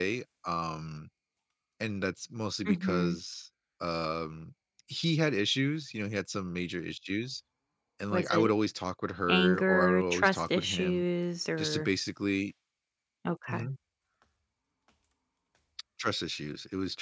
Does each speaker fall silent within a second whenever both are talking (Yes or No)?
No